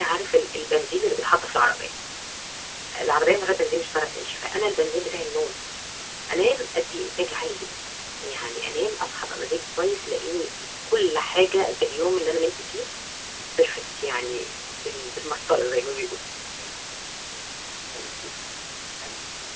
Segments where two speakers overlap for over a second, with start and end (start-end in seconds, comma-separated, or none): none